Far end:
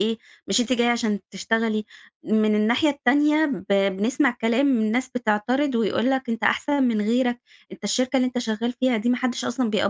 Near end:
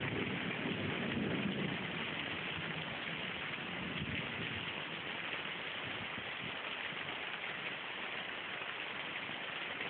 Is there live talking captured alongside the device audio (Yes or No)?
No